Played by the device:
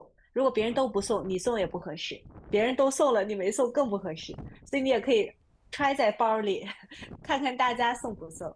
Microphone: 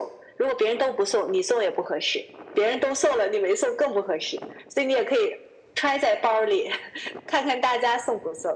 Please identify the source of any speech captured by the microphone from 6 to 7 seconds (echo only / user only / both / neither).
echo only